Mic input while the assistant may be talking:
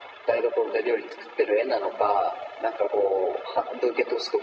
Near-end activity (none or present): none